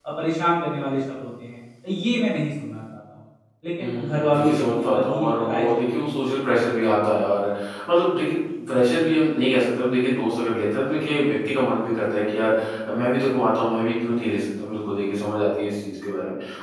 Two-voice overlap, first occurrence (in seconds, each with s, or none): 3.8 s